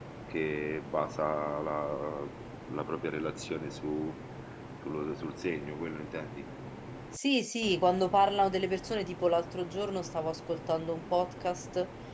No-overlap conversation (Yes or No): Yes